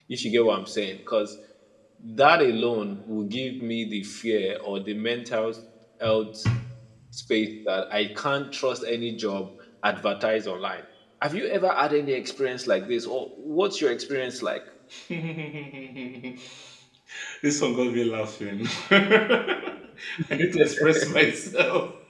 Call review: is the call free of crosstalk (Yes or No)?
Yes